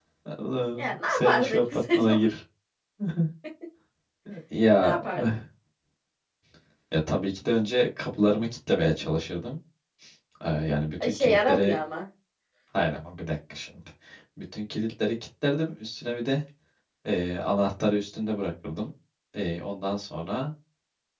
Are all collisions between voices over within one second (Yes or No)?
No